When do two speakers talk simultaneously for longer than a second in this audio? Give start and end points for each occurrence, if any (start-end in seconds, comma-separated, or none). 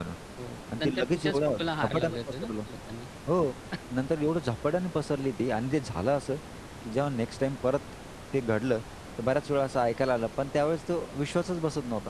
0.8-2.5